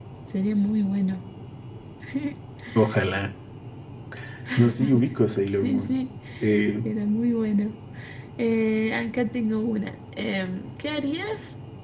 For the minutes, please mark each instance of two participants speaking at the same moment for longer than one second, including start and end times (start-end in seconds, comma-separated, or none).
none